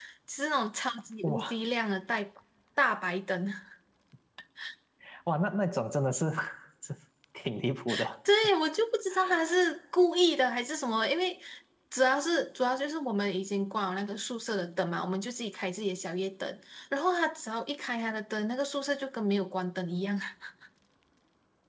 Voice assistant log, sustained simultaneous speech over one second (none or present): none